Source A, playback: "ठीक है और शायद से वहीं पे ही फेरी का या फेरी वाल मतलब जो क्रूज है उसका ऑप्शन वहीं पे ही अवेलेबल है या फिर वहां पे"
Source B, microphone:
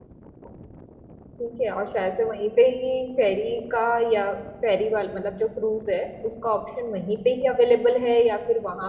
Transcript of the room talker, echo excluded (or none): none